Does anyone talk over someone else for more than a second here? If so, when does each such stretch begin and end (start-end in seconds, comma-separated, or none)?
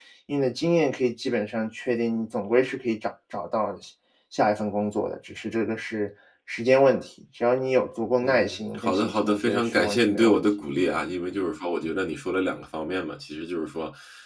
8.2-10.4